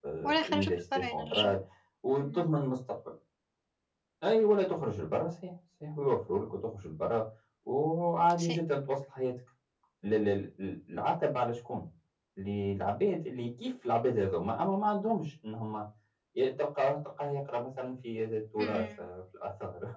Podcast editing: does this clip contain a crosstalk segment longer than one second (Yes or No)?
Yes